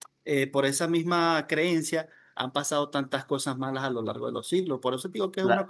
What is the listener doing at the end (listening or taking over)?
taking over